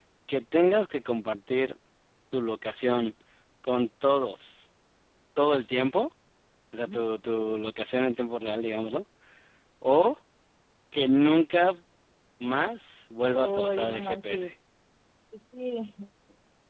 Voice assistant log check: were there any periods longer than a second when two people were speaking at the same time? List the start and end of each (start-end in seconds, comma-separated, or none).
13.3-14.5